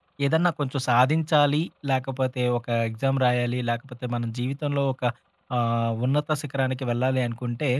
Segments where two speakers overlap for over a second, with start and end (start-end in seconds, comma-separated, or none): none